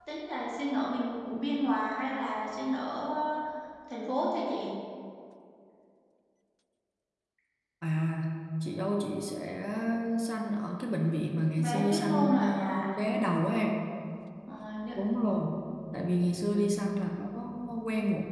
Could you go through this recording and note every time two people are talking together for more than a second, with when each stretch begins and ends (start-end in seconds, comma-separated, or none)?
11.6-12.9